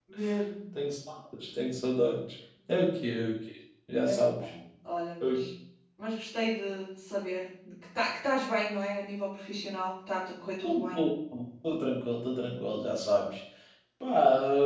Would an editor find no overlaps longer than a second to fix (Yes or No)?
Yes